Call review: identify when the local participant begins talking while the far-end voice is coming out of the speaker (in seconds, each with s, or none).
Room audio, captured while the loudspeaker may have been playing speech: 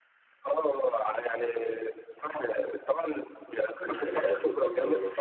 3.8 s